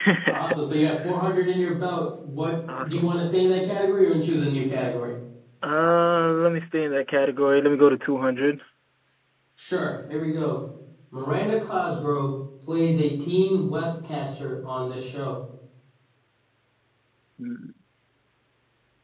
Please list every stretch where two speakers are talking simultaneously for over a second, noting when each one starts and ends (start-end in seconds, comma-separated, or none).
none